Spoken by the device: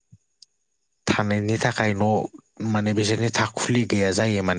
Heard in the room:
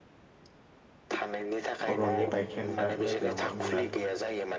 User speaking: Yes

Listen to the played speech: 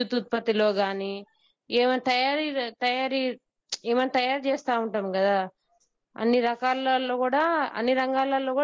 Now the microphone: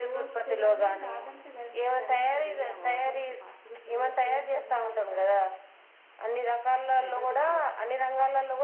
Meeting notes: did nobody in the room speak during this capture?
No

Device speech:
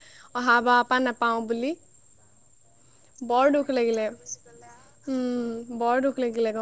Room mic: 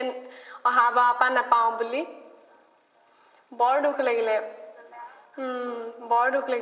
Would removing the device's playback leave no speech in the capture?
Yes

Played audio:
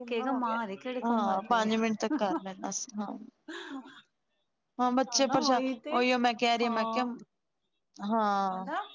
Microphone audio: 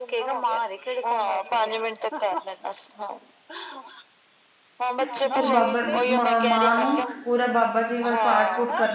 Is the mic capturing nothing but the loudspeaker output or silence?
No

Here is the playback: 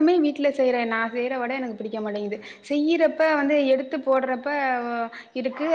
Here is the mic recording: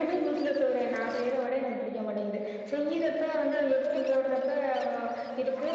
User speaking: No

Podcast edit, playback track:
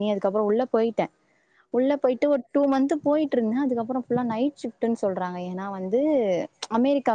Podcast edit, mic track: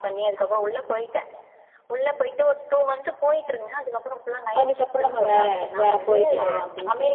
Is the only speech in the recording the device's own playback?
No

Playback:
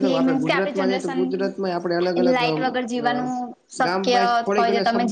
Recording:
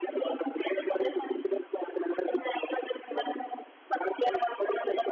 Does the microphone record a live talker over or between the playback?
No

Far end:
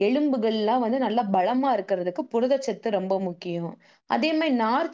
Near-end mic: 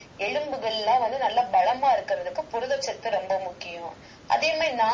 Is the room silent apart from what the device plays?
Yes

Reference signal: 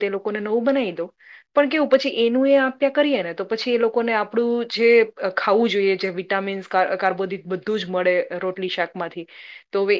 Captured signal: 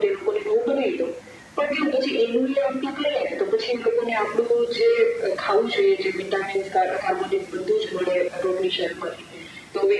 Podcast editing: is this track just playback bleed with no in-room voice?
Yes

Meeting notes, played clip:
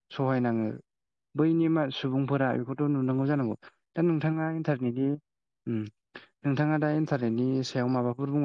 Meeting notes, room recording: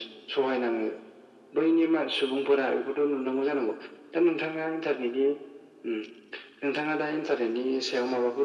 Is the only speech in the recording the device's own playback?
Yes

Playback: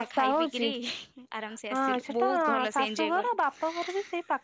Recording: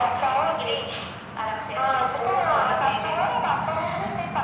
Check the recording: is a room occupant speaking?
No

